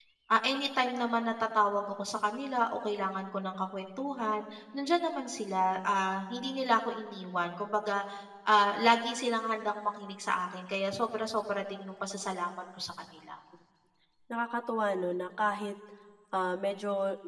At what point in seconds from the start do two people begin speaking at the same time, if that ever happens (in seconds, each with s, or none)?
none